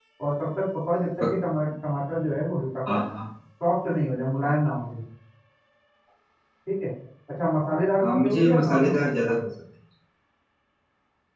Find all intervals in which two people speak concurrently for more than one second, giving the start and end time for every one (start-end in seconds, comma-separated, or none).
8.0-9.5